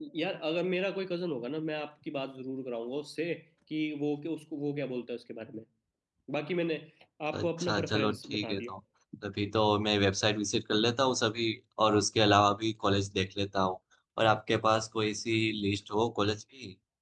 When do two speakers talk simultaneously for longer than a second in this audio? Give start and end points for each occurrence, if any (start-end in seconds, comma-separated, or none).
7.3-8.7